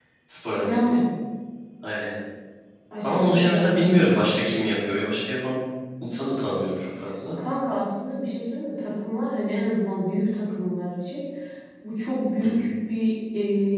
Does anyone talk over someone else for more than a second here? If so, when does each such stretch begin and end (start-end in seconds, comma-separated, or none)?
3.0-4.2